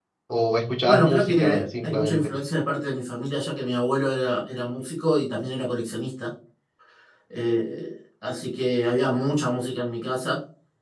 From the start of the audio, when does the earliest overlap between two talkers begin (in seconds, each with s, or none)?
0.8 s